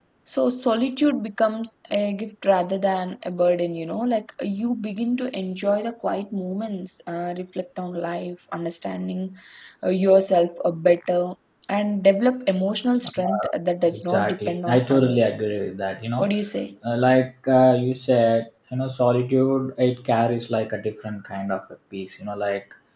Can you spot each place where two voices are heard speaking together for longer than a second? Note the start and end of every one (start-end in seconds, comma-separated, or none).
13.9-15.3